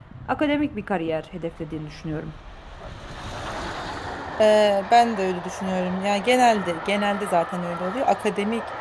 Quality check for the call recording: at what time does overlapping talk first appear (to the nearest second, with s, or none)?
none